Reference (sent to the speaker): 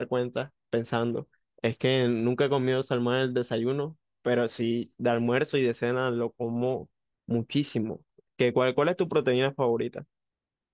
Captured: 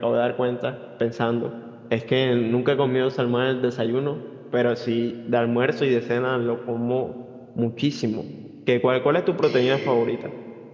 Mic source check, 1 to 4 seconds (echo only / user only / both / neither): echo only